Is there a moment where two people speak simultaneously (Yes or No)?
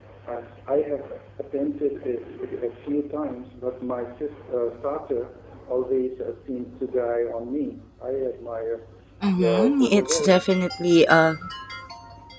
Yes